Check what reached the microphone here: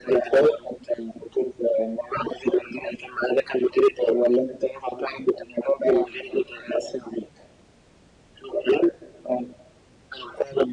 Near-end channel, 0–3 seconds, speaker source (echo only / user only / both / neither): echo only